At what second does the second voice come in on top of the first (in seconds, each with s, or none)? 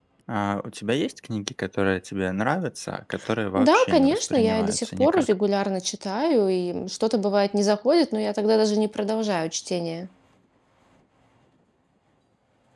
3.6 s